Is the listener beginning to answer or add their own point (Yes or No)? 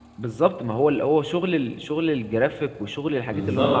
No